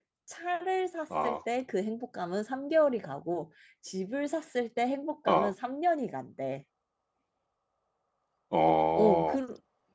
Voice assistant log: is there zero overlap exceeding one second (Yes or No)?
Yes